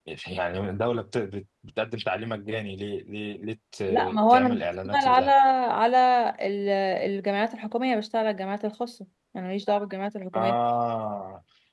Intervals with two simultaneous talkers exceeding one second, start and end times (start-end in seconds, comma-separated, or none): 3.9-5.3